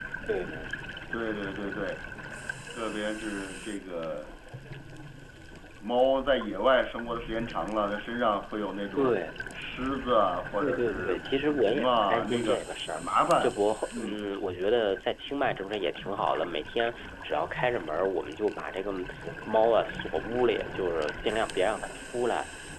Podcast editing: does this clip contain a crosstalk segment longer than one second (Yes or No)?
Yes